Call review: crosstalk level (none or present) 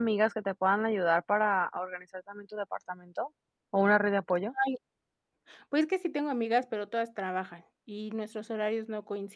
none